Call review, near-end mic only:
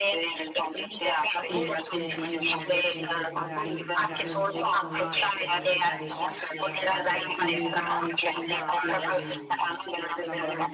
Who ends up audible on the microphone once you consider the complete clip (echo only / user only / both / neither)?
both